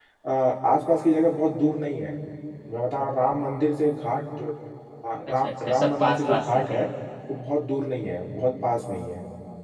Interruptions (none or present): present